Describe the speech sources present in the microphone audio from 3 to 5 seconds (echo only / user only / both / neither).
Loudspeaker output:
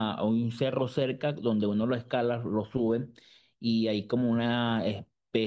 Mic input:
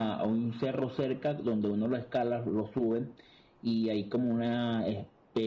echo only